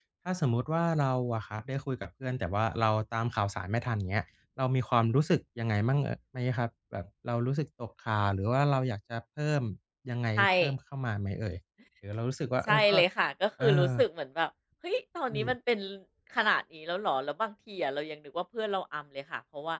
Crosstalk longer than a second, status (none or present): none